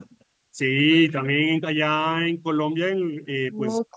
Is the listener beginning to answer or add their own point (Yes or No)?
No